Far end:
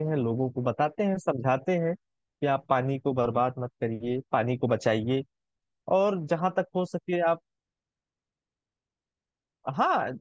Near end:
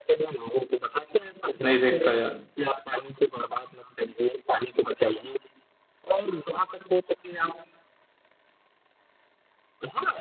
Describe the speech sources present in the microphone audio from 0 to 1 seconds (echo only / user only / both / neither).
echo only